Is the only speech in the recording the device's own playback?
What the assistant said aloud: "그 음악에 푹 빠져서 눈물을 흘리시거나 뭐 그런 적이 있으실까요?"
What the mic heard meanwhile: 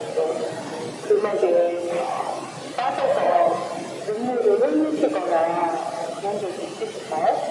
Yes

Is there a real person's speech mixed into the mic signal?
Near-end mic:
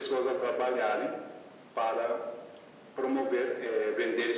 No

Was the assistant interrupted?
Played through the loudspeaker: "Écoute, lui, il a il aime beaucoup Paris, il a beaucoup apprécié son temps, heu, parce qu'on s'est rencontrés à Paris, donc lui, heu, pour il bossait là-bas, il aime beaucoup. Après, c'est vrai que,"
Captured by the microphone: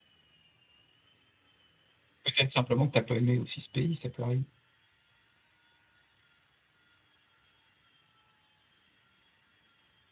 Yes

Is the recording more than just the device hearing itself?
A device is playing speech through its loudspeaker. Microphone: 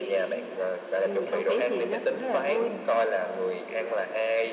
Yes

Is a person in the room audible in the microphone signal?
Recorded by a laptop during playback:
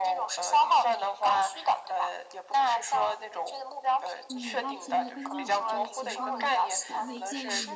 Yes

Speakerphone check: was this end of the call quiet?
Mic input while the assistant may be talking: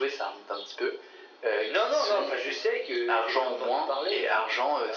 Yes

